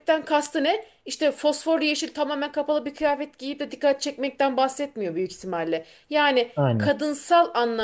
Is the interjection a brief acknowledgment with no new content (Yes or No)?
Yes